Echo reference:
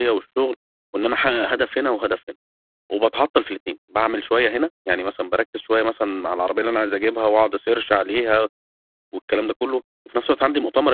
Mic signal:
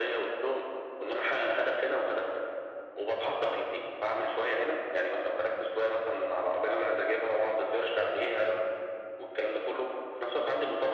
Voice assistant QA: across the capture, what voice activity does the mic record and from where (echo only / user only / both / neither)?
echo only